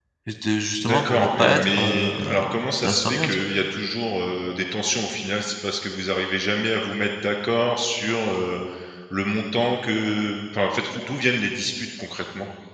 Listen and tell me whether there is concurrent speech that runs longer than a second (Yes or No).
Yes